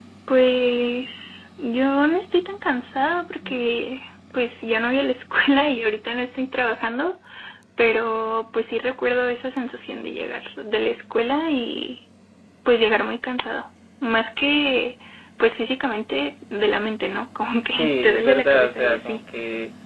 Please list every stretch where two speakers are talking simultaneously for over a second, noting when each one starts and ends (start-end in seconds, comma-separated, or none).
17.7-19.2